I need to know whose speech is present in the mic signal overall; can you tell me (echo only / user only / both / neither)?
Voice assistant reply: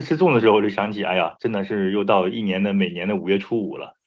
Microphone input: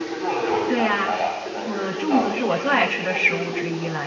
both